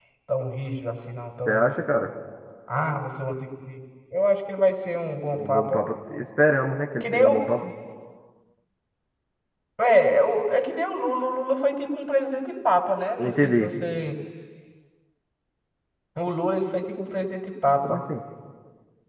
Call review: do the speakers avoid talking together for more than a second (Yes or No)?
Yes